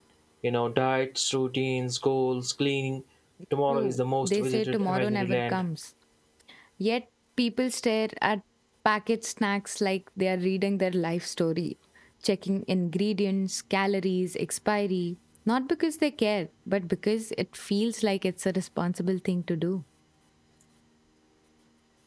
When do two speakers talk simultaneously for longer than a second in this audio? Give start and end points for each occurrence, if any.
3.7-5.6

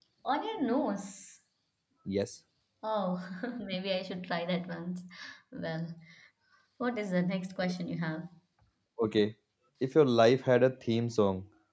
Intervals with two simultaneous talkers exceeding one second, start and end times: none

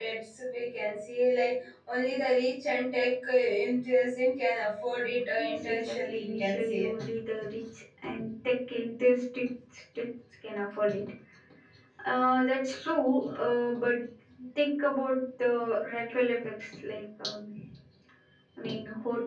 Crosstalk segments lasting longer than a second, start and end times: 5.4-6.8

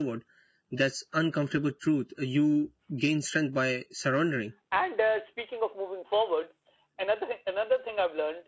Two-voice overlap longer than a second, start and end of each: none

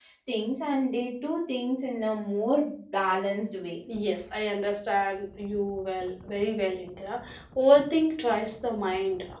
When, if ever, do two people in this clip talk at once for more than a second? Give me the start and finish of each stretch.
none

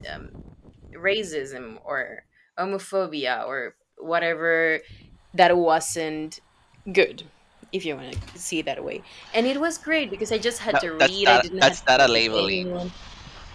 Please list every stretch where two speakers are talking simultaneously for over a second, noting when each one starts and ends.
10.7-12.7

